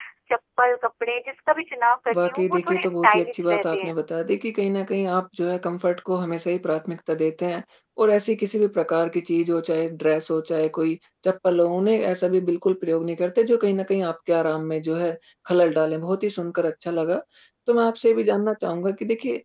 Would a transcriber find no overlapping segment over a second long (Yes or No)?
No